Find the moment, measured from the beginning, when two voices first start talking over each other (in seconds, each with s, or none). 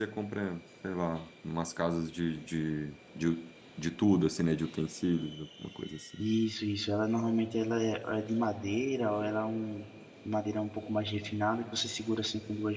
none